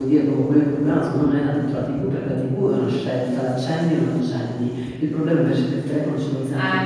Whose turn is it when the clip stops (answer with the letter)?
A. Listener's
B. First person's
B